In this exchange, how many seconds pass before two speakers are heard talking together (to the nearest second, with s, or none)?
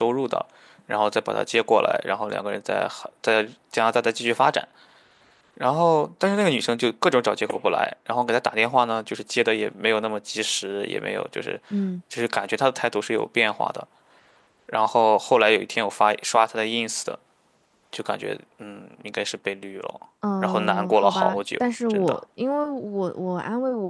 20 s